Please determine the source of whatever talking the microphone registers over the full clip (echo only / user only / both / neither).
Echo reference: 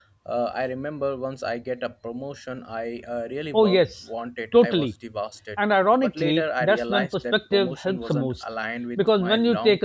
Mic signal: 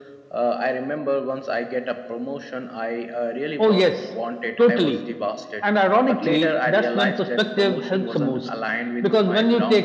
echo only